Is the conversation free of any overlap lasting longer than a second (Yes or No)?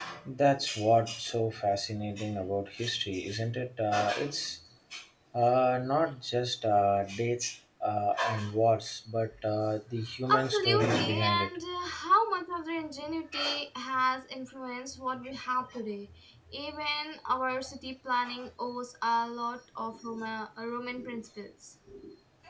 No